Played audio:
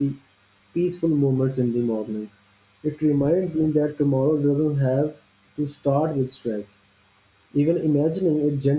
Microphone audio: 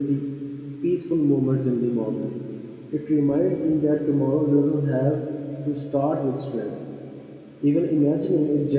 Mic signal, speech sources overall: echo only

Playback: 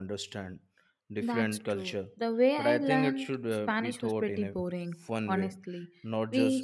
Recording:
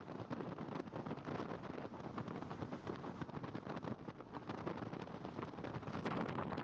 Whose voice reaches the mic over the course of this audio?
neither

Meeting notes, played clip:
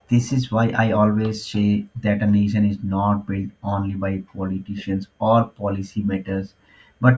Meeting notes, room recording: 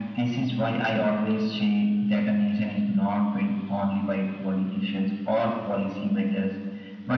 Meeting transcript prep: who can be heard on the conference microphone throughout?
echo only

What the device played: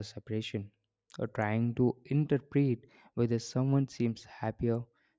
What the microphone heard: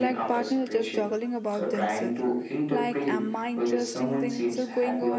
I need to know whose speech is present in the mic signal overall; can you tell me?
both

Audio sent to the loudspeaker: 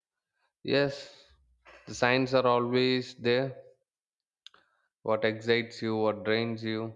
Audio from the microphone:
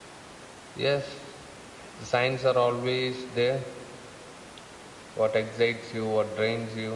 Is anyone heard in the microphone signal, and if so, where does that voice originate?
echo only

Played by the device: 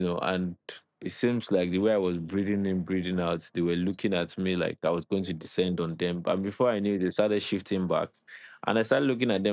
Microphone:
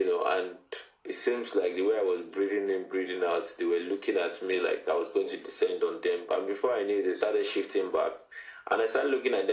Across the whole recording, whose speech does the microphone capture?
echo only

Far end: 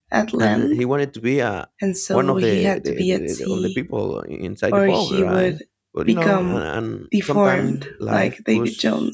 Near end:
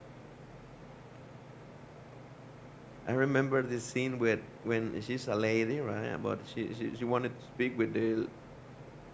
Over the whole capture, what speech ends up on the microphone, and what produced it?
user only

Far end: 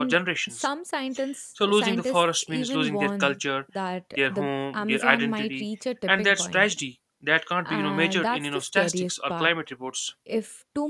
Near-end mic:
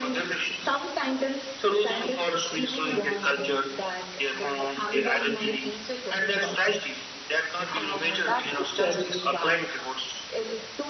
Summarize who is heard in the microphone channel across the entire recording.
echo only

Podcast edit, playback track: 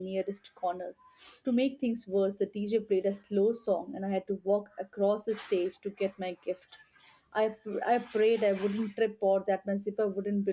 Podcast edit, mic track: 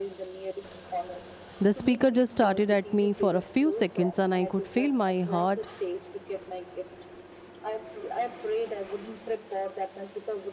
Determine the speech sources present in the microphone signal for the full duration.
both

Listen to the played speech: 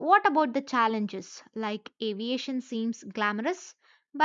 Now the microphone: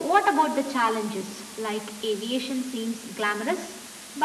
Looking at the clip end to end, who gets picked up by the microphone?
echo only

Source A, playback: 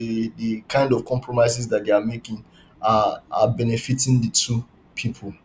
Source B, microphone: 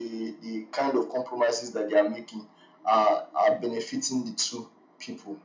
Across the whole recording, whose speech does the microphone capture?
echo only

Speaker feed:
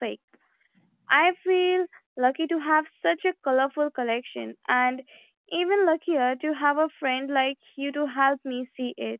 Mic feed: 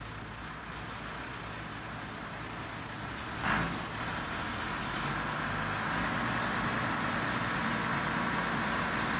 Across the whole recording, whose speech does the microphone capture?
neither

